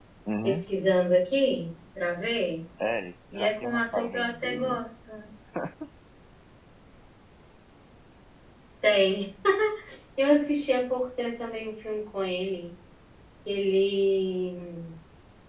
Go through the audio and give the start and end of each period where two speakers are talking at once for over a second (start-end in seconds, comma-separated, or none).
3.3-4.8